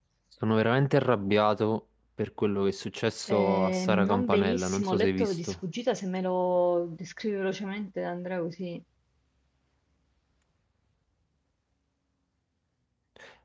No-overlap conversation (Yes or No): No